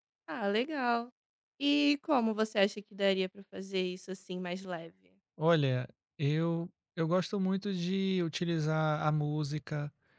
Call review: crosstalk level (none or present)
none